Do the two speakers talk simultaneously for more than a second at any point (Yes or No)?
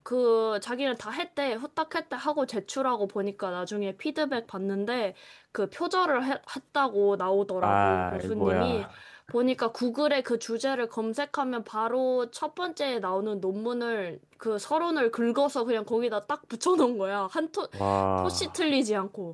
Yes